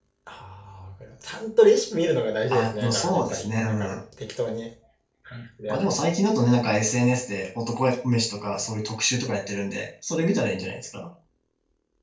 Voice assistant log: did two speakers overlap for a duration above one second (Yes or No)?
Yes